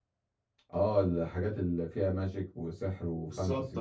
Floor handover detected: Yes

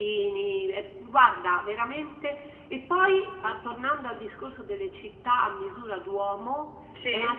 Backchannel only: Yes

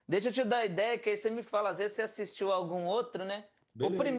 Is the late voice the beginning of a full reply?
No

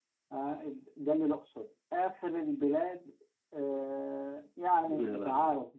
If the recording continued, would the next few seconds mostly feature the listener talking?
No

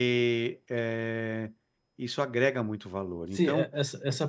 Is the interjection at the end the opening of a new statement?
Yes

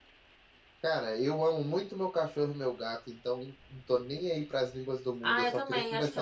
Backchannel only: No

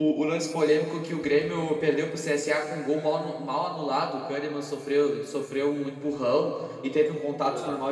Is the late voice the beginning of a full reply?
No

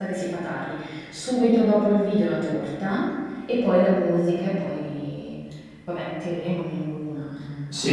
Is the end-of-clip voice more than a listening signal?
Yes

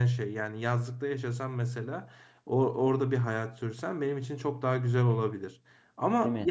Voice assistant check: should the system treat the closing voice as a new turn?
No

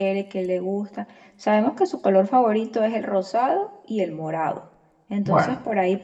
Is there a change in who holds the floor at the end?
No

